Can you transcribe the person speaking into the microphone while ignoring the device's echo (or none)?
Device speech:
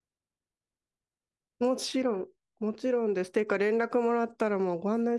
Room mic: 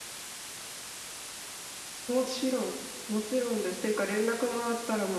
none